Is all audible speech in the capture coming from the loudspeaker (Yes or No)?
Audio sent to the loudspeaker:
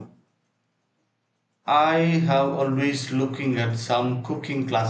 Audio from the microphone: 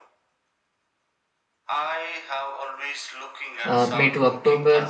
No